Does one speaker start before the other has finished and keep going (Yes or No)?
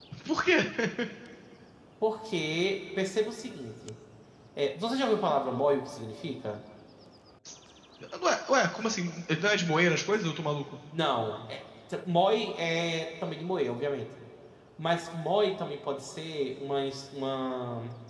No